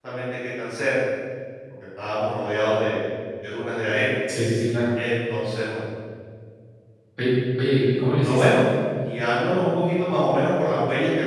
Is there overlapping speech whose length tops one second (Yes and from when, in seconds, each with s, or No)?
No